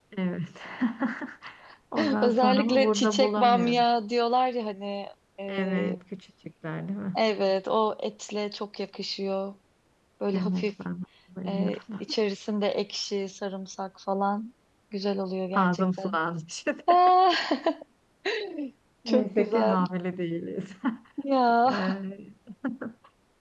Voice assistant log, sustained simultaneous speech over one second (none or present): present